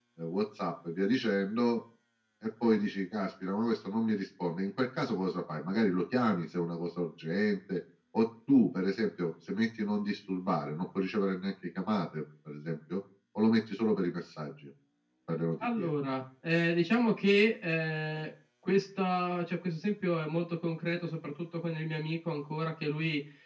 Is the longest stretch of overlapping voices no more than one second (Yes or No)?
Yes